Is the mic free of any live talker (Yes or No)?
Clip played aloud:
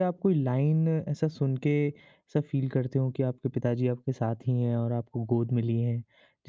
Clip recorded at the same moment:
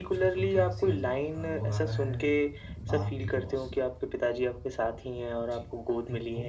No